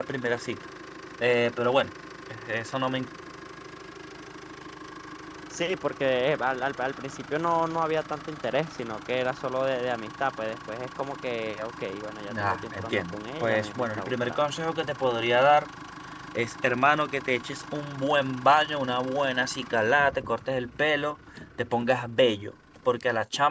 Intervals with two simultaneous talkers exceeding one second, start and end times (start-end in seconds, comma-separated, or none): 12.4-14.6